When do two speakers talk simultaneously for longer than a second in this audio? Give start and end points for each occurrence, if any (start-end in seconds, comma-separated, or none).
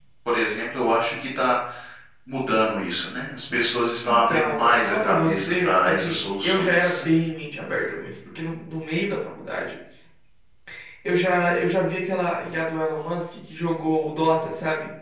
4.0-7.0